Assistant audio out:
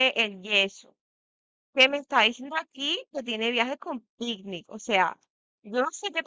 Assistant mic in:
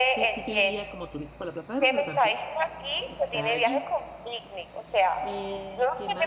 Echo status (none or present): present